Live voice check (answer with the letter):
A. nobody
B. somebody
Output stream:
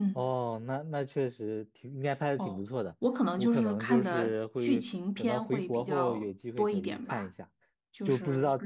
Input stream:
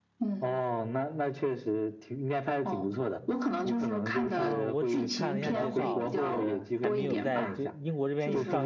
B